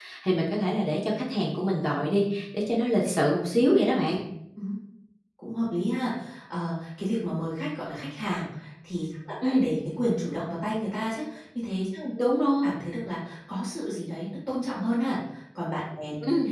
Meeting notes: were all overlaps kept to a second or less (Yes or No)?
Yes